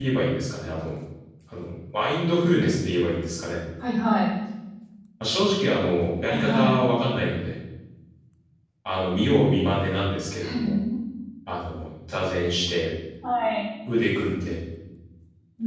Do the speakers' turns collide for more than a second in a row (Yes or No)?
No